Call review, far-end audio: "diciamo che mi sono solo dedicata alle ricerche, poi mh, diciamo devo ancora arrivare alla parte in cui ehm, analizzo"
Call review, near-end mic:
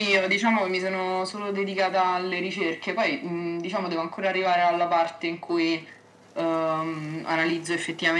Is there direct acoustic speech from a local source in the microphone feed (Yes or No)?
No